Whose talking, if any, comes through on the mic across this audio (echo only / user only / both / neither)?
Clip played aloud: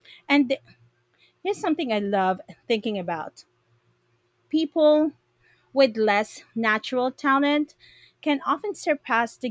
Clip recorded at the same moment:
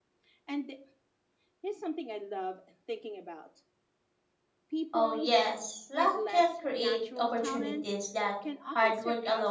both